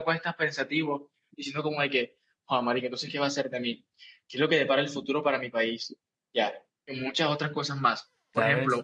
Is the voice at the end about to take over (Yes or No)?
No